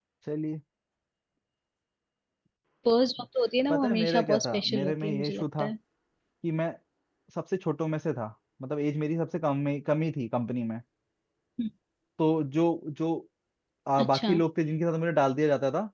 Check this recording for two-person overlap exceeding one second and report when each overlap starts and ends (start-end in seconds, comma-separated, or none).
3.7-5.7